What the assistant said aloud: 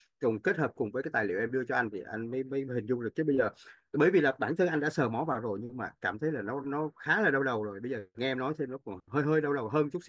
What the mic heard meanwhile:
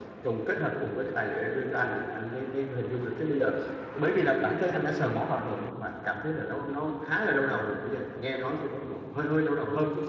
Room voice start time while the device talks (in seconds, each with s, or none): none